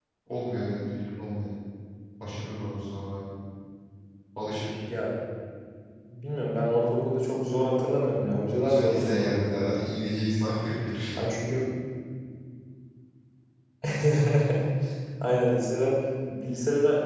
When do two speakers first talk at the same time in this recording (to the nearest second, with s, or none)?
9 s